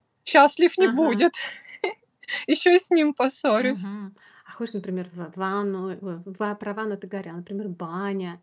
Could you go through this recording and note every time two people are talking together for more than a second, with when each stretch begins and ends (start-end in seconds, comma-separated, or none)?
none